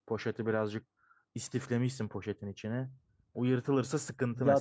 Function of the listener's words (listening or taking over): taking over